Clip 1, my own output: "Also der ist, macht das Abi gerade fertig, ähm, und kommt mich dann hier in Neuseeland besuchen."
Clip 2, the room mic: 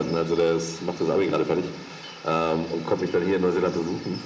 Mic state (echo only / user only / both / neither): echo only